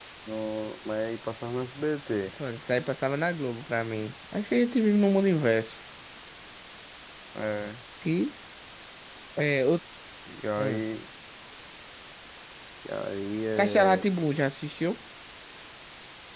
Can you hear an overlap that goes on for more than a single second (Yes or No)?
No